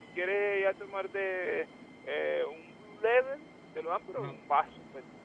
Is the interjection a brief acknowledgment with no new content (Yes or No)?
Yes